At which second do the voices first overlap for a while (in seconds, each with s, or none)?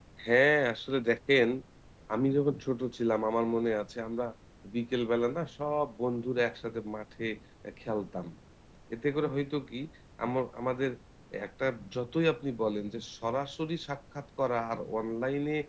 none